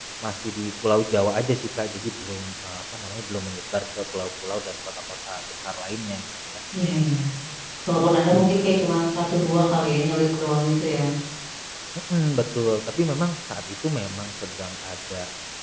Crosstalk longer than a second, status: none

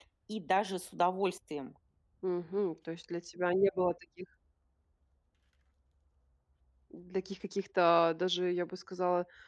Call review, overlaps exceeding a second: none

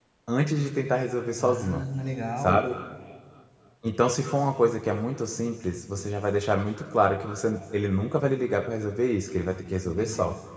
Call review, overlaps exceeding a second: none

